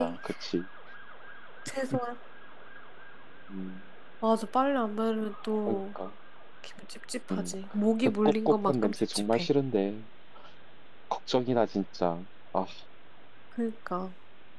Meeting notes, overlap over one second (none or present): present